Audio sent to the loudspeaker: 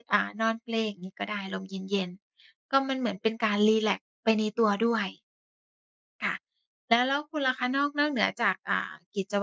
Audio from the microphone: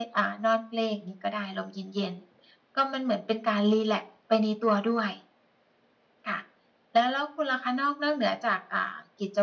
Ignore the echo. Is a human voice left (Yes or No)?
No